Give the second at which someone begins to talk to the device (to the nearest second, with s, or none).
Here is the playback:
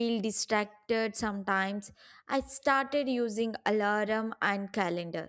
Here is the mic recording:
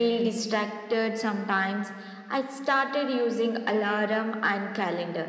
none